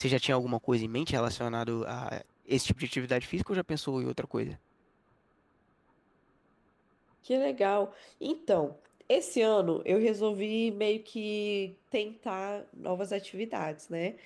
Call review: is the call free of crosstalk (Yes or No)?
Yes